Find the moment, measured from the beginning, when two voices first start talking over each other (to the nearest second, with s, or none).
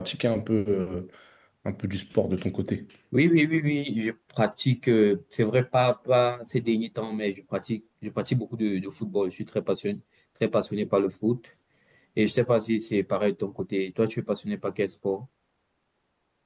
none